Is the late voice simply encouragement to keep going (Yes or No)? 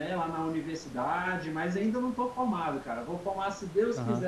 Yes